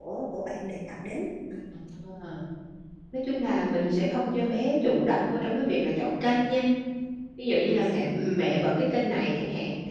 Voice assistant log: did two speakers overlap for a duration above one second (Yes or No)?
No